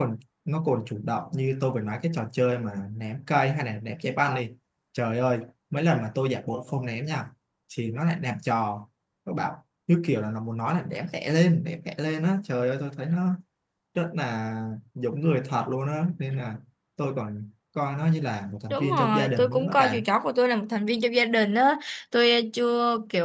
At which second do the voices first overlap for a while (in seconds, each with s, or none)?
18.7 s